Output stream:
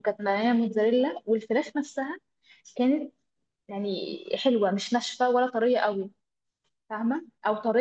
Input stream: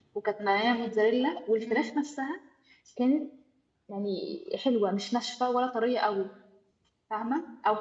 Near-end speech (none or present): present